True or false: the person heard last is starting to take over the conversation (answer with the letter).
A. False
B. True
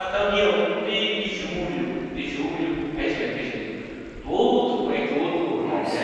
B